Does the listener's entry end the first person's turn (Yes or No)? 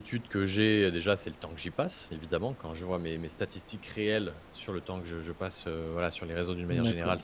Yes